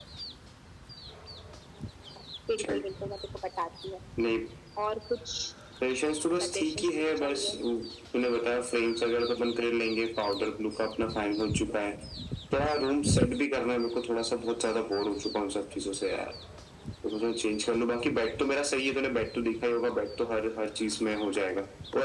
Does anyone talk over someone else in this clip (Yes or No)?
Yes